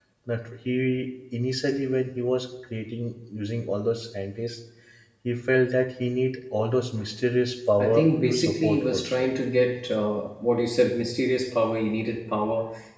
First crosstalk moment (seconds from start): 7.8 s

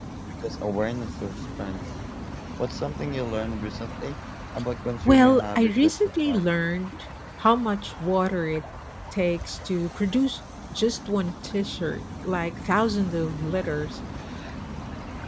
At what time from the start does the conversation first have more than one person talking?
5.0 s

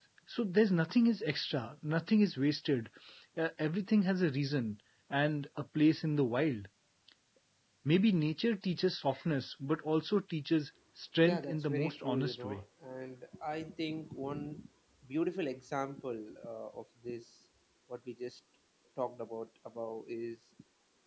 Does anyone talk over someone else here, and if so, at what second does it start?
11.2 s

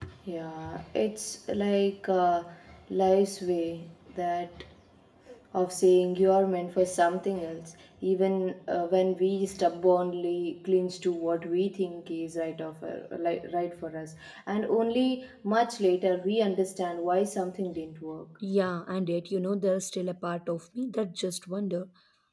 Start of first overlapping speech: none

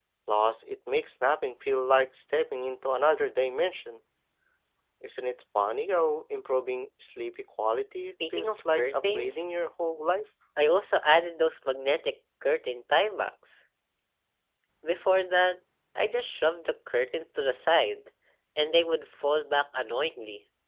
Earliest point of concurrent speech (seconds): 8.0 s

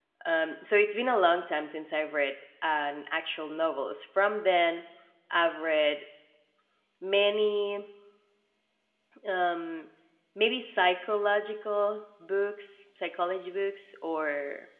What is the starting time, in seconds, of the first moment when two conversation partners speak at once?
none

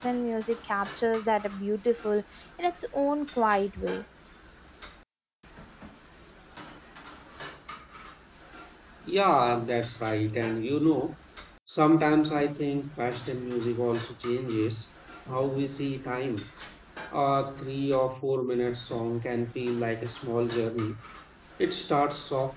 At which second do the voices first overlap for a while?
none

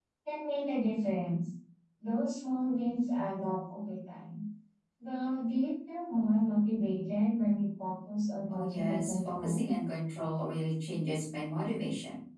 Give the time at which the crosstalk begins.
8.5 s

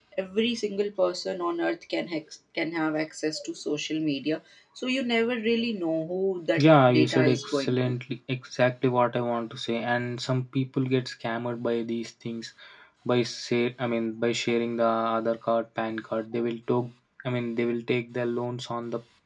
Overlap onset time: 6.6 s

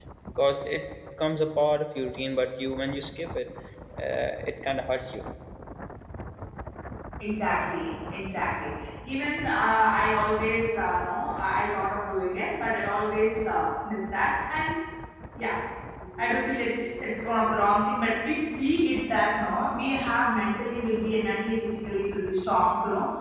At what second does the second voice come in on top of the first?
none

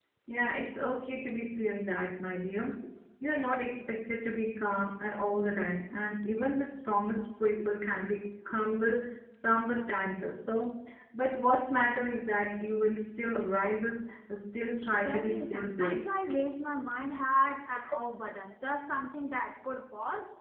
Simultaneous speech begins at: 14.9 s

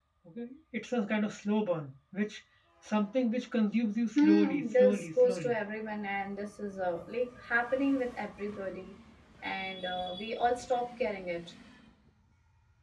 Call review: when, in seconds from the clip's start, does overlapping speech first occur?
4.2 s

